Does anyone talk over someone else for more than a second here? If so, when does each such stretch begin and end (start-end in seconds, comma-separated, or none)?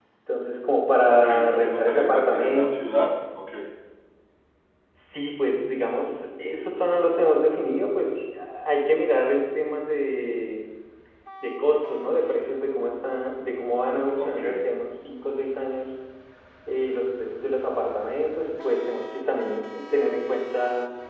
1.1-2.8